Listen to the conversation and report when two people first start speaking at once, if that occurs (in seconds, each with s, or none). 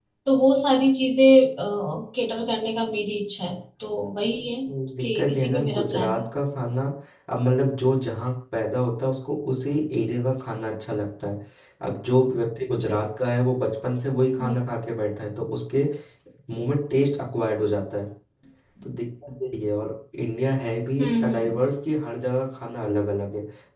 5.0 s